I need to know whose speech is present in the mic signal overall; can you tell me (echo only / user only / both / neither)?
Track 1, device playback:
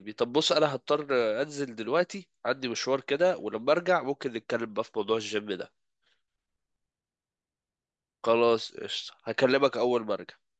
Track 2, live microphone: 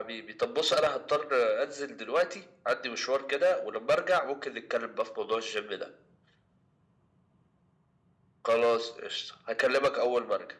echo only